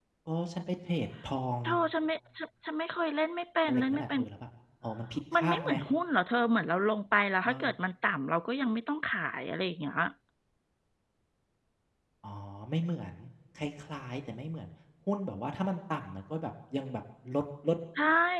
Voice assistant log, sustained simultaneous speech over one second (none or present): none